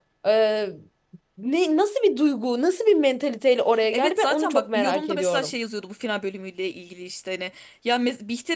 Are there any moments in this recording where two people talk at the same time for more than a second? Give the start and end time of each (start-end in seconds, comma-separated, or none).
3.9-5.5